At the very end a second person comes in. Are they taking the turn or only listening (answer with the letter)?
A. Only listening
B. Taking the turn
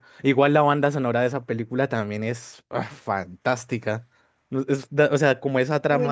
B